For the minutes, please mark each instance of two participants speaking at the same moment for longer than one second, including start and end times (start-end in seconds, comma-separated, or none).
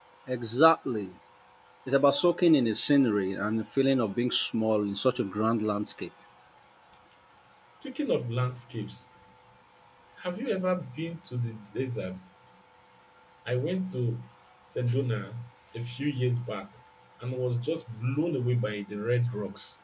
none